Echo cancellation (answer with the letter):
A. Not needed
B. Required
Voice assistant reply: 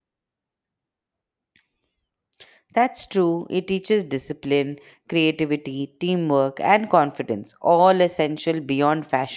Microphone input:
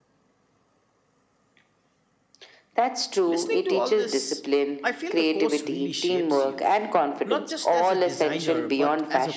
B